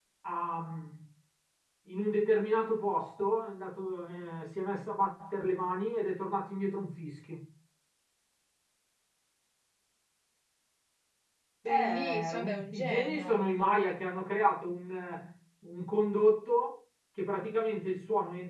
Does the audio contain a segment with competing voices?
Yes, from 11.6 s

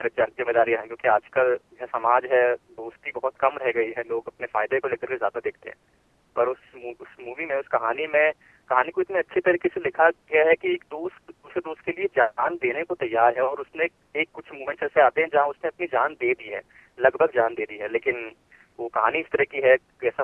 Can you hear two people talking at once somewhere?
No

